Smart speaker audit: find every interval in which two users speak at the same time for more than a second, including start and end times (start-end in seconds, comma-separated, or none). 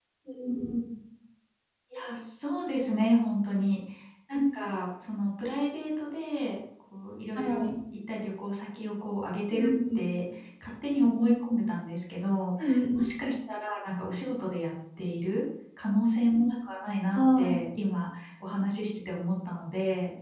none